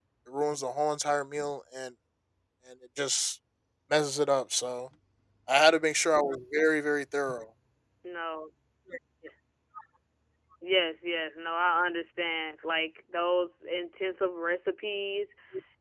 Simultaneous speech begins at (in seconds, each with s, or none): none